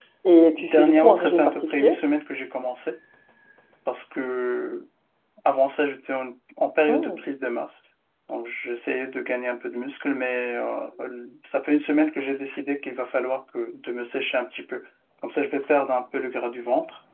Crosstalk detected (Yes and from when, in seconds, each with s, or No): Yes, from 0.6 s